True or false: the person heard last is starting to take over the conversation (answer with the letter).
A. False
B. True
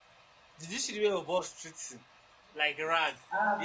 B